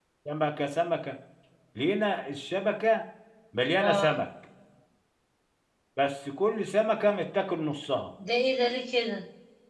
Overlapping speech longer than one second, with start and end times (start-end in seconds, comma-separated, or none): none